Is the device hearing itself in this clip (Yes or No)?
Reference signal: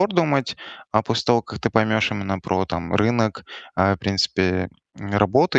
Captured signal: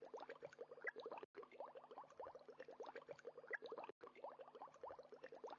No